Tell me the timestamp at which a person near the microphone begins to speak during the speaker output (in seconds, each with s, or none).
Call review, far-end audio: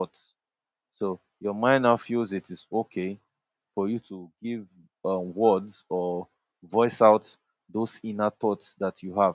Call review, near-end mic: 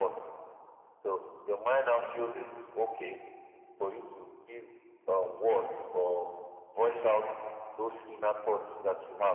none